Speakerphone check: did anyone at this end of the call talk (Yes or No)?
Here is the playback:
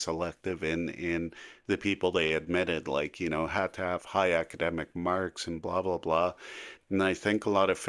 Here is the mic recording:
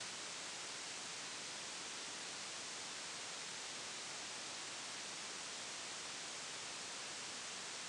No